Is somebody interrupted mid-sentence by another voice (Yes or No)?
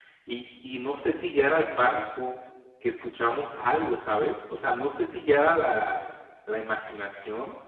No